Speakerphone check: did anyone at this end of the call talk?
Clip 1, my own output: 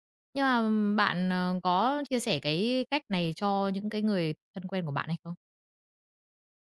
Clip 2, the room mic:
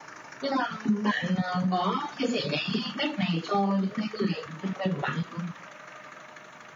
No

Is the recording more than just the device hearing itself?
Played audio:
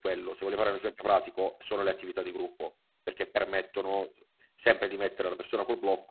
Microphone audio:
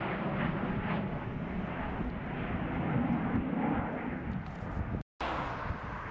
No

